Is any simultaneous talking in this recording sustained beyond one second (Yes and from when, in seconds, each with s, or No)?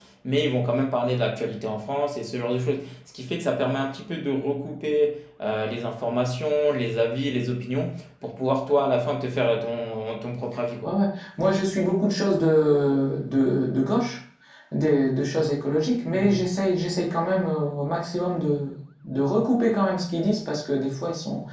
No